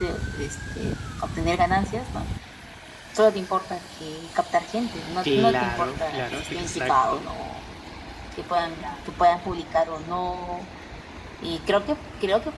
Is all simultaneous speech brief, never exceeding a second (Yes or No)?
No